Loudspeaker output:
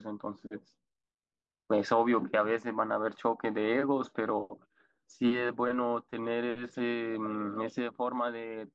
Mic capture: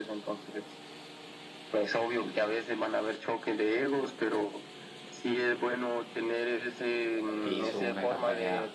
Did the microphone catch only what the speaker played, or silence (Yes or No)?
No